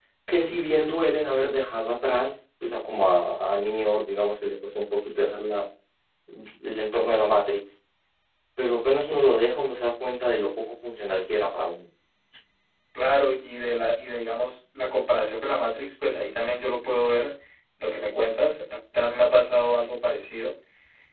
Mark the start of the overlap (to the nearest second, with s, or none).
none